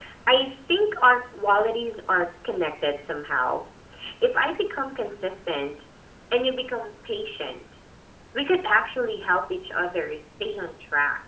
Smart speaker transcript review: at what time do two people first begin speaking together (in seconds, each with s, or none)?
none